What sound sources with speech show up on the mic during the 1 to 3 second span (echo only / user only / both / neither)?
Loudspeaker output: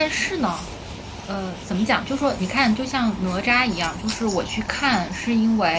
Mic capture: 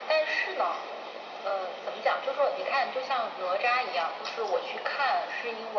echo only